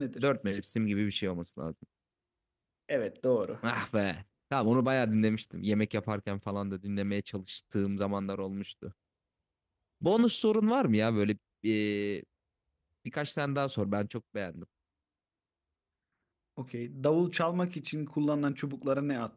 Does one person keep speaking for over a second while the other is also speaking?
No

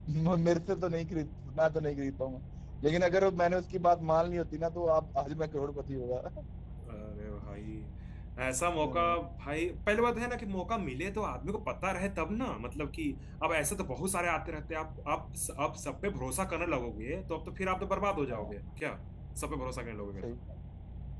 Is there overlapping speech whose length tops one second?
No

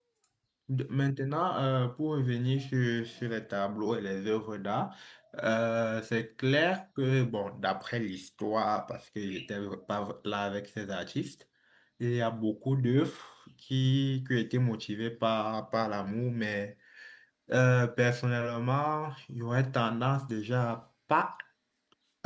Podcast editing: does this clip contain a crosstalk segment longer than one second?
No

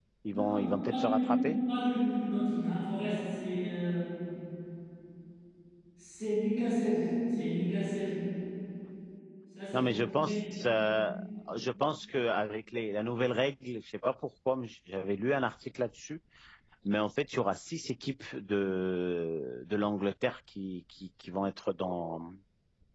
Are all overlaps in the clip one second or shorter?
No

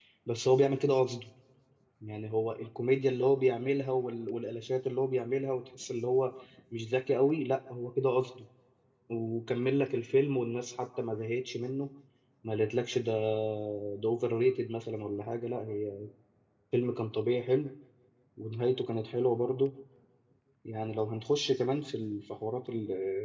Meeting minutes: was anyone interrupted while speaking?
No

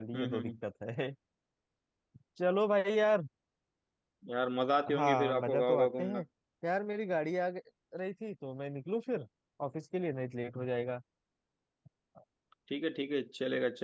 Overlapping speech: Yes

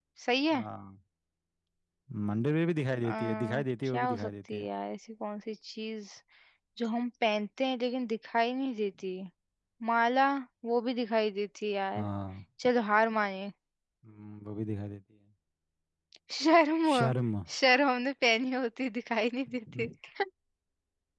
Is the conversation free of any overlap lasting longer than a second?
No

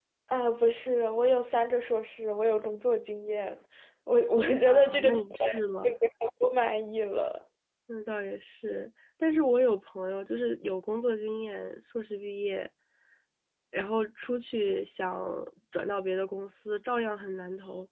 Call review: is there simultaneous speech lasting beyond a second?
Yes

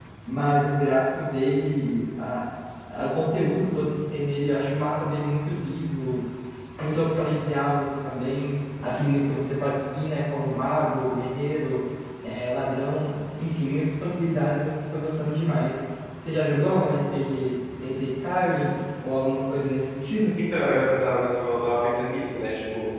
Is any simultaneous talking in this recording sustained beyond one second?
No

